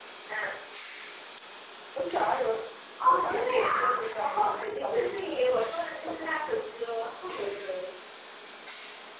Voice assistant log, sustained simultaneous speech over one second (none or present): present